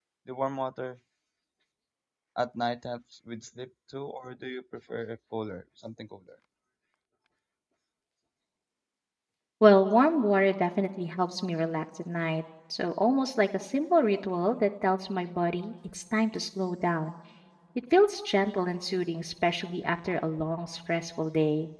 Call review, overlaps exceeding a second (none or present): none